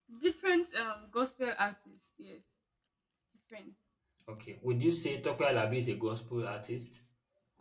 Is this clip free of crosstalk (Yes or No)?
Yes